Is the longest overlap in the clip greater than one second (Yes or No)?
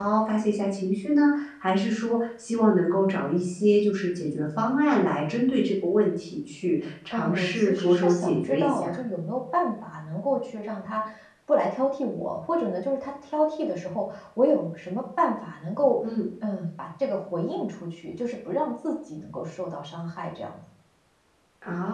Yes